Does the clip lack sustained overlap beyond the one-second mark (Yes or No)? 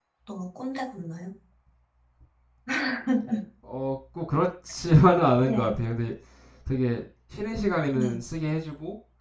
Yes